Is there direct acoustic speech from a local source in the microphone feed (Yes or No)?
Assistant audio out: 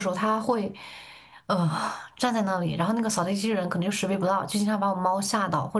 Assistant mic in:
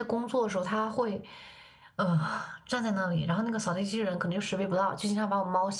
No